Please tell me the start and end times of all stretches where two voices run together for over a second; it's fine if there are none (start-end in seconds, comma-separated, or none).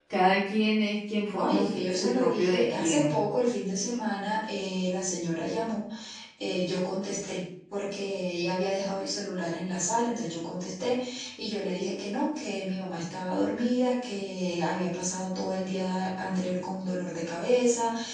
1.3-3.1